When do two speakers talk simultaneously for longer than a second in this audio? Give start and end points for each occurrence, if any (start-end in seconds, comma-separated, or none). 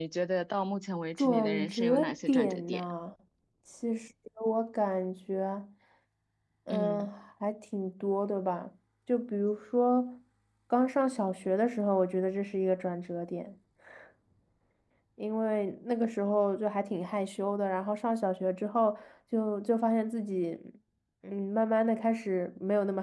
1.2-2.8